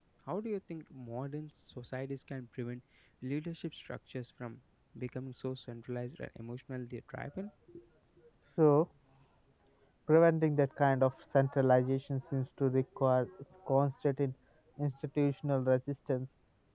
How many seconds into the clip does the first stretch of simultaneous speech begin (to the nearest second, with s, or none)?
none